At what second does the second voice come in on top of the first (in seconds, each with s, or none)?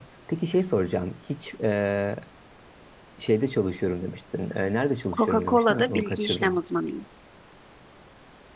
5.1 s